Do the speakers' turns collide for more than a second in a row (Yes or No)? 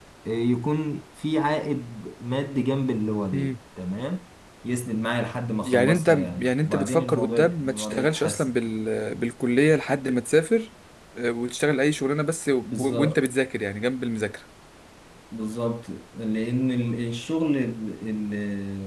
Yes